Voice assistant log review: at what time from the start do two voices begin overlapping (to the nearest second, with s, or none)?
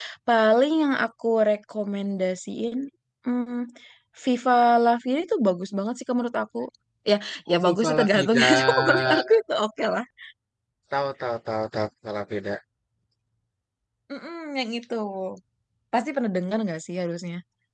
8 s